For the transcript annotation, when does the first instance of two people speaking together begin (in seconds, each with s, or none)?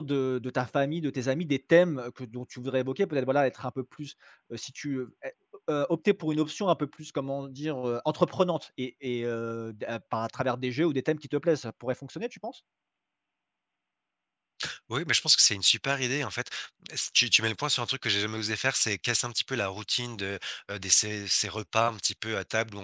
none